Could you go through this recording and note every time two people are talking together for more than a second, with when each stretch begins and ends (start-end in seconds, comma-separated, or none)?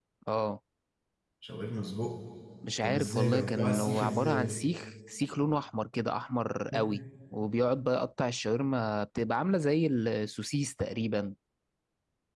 2.8-4.6